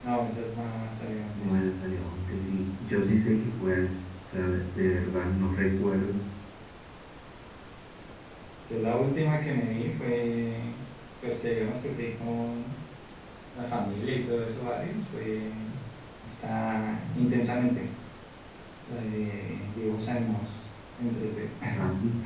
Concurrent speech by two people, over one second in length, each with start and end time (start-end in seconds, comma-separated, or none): none